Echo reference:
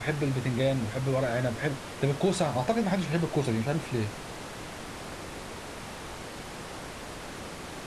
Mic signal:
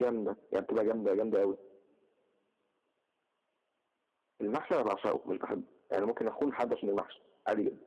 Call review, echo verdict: none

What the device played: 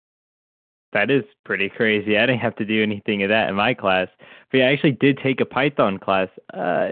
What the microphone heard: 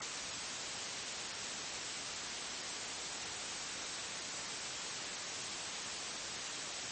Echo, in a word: none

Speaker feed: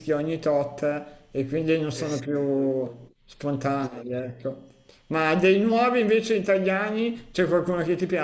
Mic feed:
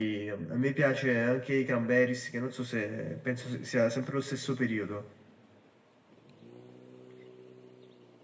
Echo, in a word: none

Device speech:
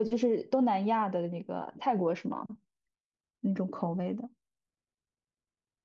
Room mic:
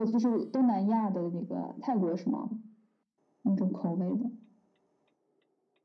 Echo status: present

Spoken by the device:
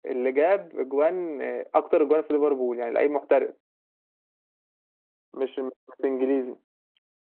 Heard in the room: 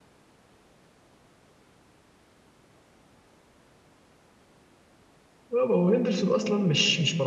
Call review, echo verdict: none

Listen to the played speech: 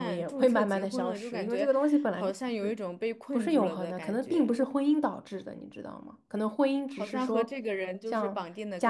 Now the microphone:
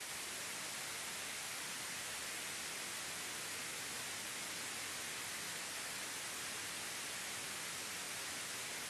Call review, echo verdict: none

